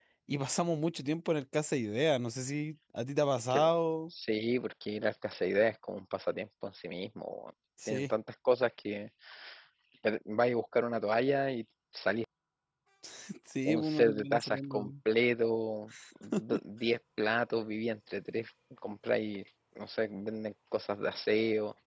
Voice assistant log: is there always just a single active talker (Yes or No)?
No